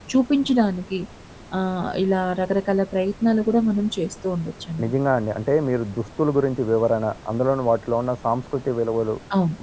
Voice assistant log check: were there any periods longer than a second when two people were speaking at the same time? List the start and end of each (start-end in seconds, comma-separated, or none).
none